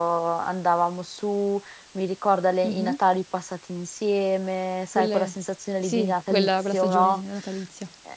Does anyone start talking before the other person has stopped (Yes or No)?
Yes